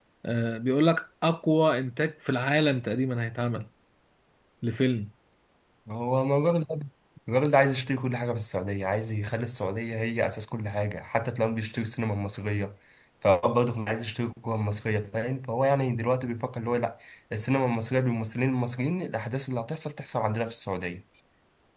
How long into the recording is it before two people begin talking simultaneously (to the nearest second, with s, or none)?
none